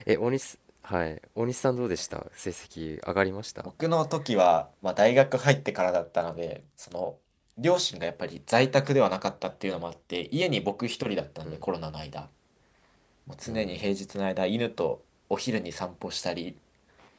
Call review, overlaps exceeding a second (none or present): none